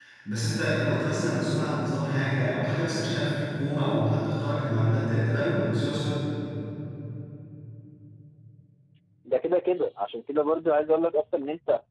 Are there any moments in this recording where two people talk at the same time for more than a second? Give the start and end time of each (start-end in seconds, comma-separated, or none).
none